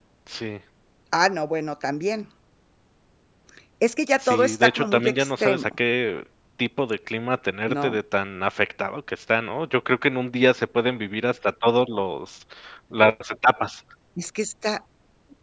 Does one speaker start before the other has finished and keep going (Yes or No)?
Yes